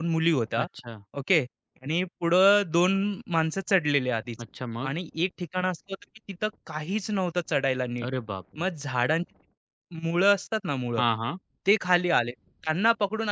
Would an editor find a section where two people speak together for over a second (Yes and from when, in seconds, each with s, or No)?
No